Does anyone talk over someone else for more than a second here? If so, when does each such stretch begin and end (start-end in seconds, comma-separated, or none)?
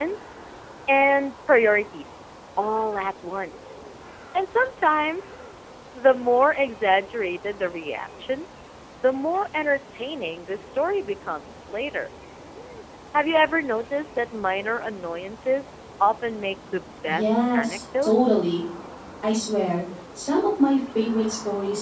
17.1-18.5